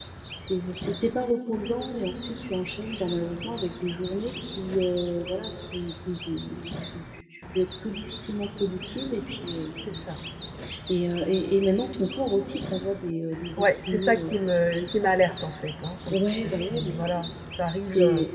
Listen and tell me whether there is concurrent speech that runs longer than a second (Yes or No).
Yes